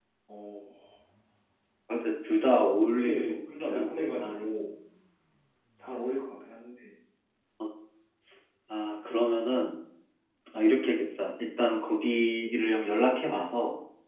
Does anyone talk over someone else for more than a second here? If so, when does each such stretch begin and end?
3.0-4.5

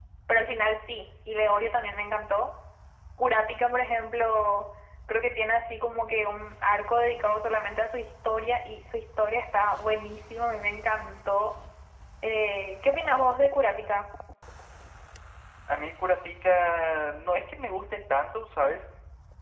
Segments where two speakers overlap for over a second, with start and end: none

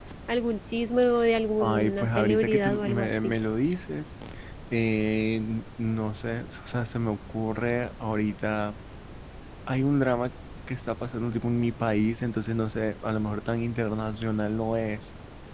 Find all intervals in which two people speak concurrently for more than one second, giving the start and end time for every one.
1.6-3.3

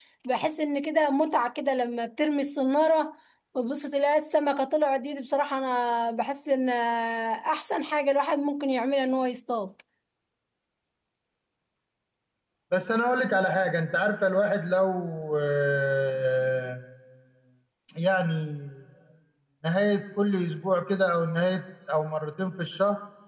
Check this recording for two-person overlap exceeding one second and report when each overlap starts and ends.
none

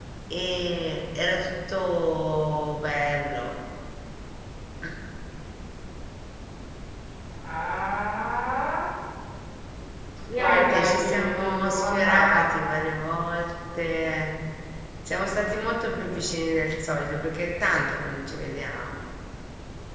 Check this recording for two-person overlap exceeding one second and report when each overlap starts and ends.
10.3-12.5

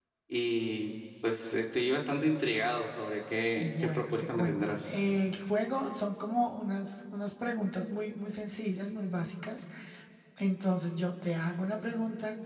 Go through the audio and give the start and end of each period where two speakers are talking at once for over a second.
3.6-4.9

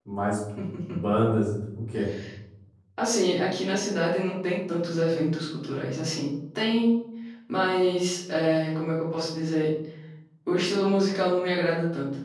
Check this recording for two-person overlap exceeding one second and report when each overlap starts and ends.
none

